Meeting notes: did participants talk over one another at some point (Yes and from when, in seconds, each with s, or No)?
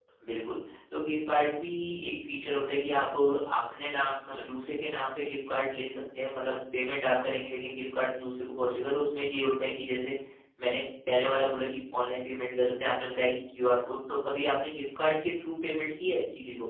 No